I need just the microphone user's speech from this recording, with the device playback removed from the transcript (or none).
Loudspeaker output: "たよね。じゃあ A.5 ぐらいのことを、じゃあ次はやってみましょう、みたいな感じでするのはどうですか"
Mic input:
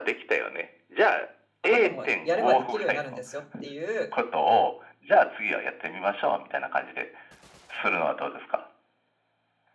あなたもやればできるようになるんですよっていう